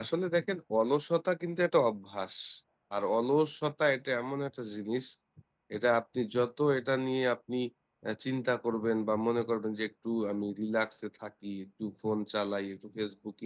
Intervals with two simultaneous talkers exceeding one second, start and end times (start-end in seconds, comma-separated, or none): none